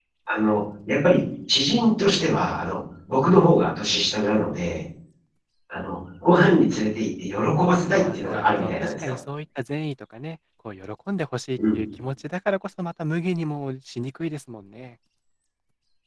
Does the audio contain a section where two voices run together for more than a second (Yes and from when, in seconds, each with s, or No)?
Yes, from 7.6 s